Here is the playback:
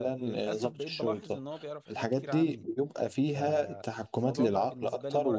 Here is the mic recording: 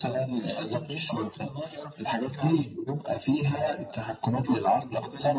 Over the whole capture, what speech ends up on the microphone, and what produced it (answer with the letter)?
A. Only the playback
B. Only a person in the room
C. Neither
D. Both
A